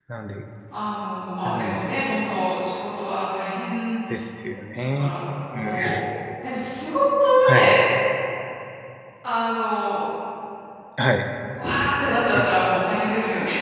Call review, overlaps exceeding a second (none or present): none